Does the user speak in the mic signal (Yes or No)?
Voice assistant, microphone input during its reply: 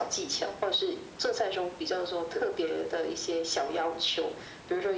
No